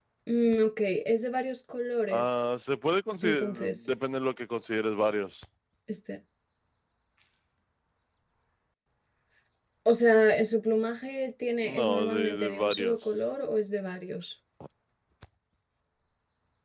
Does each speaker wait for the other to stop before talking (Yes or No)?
No